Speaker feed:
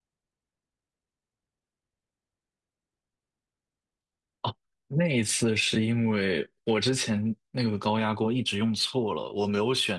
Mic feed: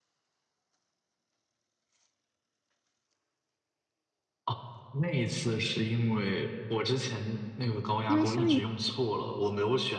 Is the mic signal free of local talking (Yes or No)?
No